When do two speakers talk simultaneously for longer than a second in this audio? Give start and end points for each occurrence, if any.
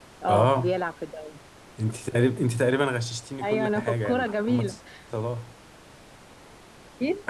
3.4-4.7

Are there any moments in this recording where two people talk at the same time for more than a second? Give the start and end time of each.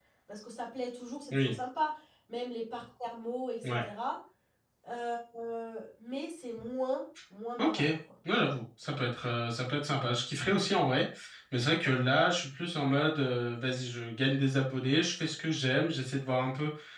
none

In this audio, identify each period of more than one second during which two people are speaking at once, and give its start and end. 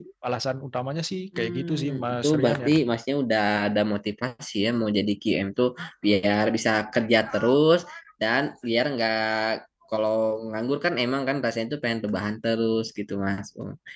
1.4-2.7

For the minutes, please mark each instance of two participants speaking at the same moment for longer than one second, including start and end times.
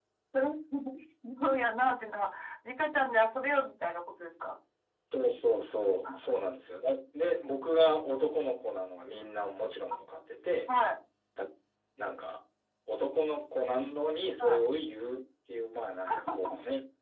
none

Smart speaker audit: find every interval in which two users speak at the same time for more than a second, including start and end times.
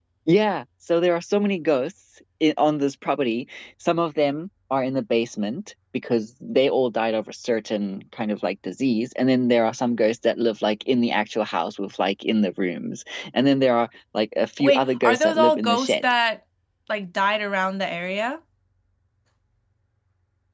14.6-16.0

